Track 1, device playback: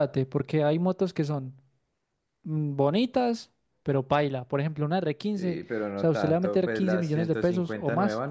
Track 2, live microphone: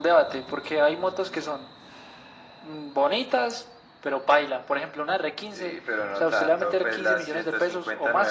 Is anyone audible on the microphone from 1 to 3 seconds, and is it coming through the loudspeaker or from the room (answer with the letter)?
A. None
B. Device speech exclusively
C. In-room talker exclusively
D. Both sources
B